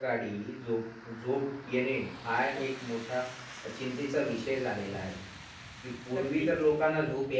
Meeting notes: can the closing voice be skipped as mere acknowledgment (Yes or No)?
Yes